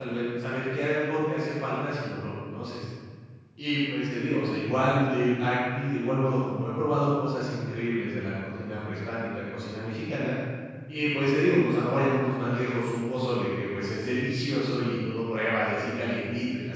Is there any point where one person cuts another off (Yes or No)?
No